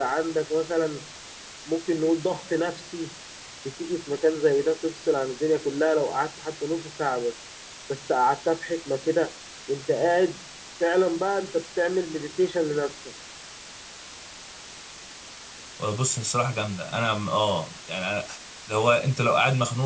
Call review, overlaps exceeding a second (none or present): none